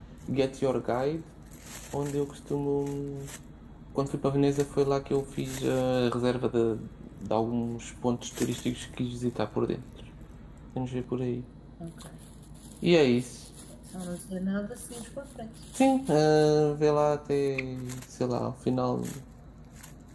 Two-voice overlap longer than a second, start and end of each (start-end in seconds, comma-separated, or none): none